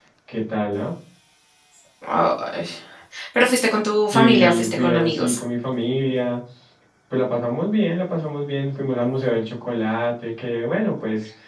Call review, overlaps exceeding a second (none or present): present